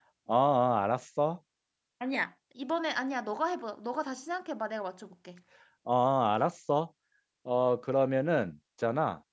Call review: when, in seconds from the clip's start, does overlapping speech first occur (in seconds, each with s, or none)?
none